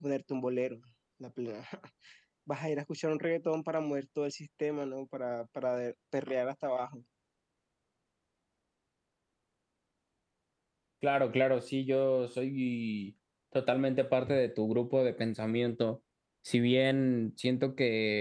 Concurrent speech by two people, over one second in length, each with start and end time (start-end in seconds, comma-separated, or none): none